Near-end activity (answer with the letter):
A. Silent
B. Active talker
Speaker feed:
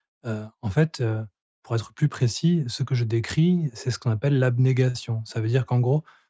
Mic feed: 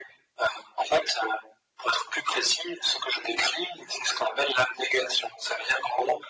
A